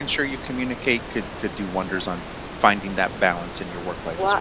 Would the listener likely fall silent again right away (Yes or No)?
No